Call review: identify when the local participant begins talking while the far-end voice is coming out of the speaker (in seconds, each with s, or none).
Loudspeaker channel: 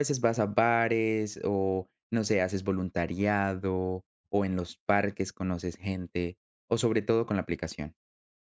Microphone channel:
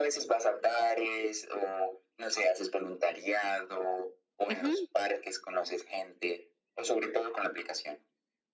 4.5 s